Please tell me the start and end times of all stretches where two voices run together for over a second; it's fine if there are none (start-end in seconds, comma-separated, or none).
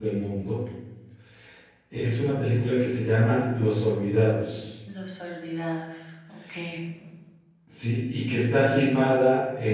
none